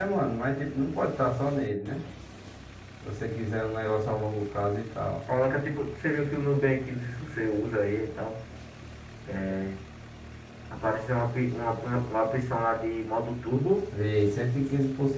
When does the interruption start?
none

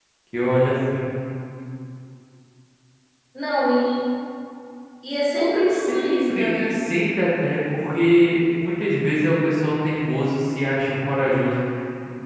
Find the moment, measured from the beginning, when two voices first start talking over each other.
5.4 s

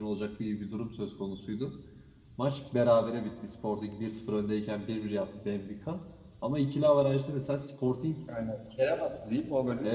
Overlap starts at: none

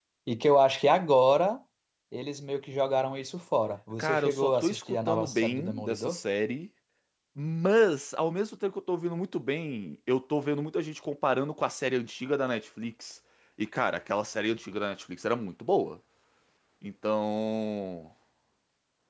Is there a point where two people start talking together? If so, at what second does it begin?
4.0 s

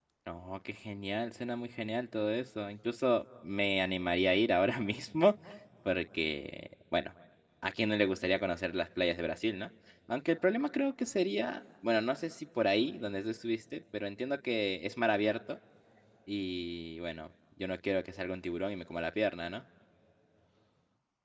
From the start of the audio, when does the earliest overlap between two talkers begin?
none

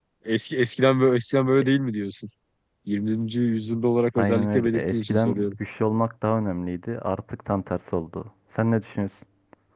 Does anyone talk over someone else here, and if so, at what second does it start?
4.2 s

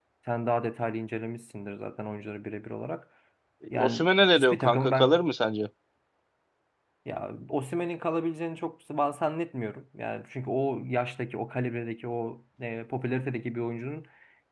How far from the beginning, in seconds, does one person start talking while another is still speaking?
3.8 s

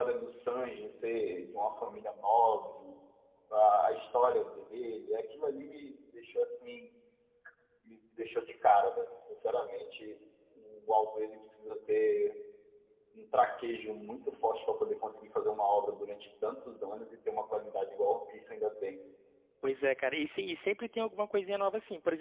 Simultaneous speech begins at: none

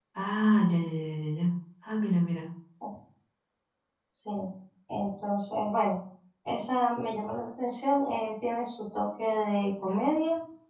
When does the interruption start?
none

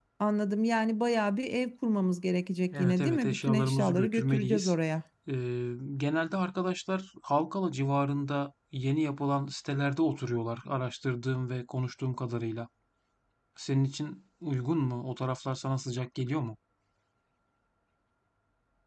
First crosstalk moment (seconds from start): 2.7 s

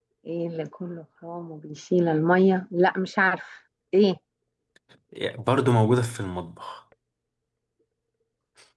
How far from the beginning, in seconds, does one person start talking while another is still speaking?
none

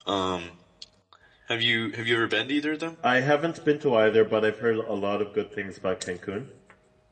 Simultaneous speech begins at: none

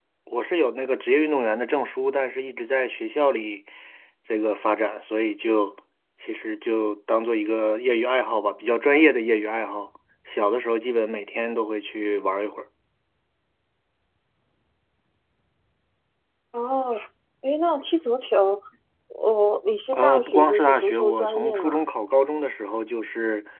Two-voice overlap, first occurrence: 19.9 s

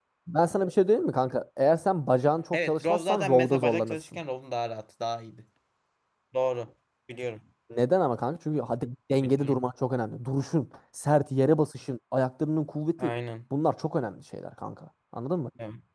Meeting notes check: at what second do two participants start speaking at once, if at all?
2.5 s

